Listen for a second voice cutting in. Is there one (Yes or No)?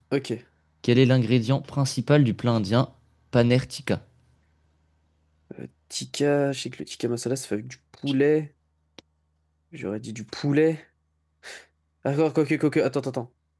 No